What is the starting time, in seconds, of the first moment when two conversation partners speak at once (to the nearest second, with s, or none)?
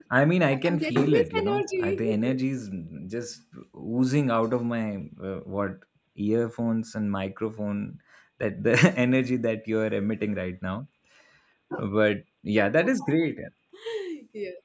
1 s